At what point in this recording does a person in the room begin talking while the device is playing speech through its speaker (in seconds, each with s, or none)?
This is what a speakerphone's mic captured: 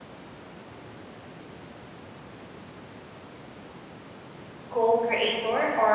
4.7 s